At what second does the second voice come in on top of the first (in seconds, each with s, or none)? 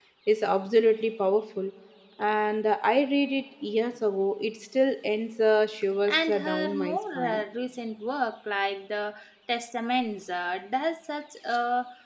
6.1 s